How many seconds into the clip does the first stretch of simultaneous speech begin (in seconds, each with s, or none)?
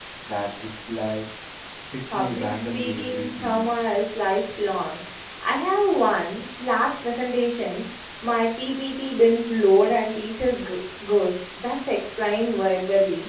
2.1 s